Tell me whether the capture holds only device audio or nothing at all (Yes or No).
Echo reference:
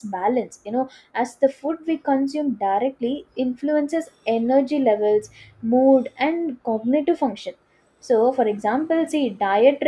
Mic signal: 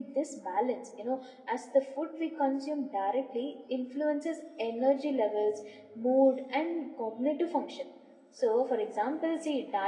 Yes